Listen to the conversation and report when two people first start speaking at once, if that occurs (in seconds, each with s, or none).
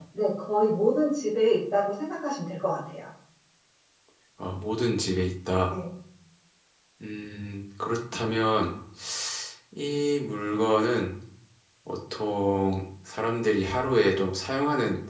none